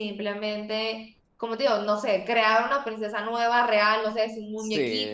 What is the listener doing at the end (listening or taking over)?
taking over